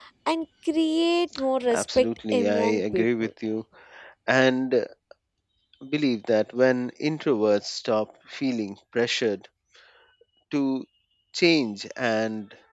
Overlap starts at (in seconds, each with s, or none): 1.7 s